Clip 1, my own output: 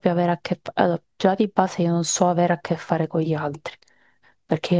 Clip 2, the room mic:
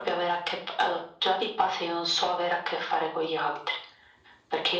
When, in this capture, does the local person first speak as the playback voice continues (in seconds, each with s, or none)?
none